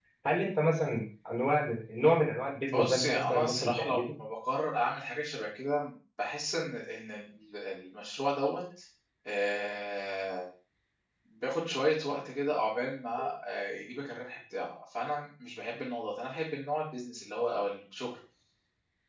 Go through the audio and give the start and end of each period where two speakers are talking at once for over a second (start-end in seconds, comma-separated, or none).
2.7-4.1